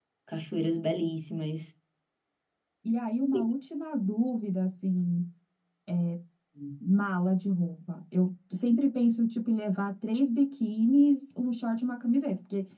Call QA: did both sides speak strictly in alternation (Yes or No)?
Yes